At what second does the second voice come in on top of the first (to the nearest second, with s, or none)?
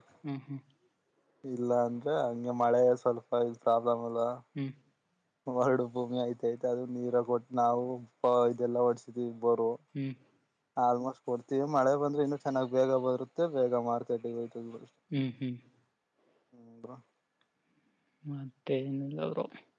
none